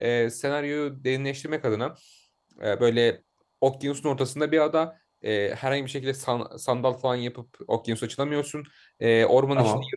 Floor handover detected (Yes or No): No